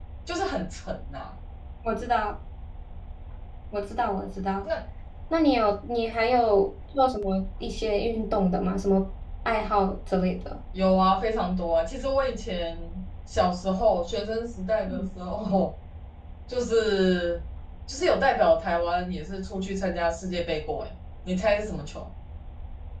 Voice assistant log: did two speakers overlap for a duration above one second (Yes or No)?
No